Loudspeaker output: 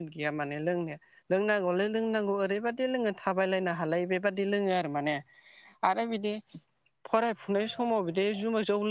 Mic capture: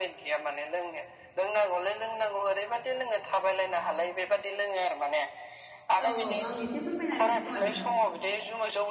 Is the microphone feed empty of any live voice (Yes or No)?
No